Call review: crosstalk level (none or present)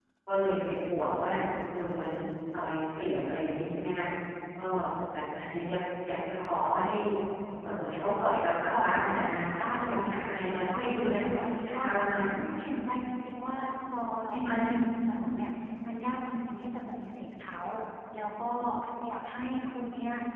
present